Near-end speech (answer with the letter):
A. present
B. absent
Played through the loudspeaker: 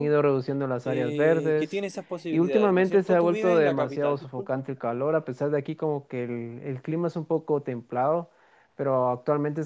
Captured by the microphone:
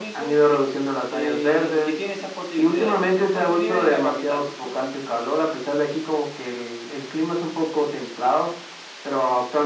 B